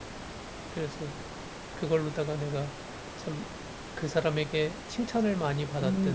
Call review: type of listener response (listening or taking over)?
taking over